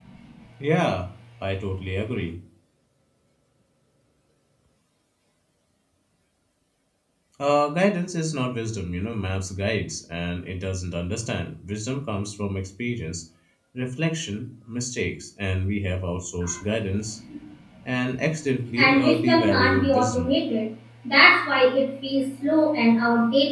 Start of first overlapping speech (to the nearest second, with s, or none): 19 s